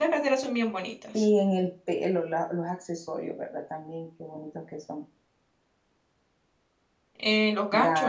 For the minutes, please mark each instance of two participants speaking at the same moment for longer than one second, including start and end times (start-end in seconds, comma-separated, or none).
none